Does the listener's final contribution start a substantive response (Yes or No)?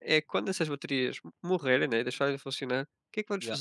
No